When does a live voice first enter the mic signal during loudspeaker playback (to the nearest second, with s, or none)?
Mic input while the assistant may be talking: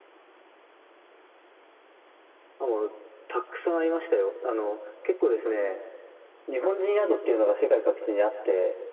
none